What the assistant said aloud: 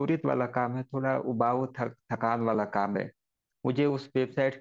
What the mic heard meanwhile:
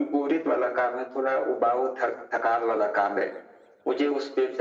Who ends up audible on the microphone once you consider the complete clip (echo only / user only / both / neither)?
echo only